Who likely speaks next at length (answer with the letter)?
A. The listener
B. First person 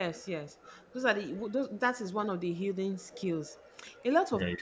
B